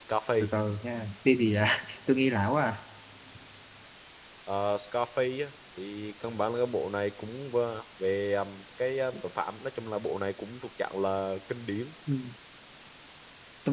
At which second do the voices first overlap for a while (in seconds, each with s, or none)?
none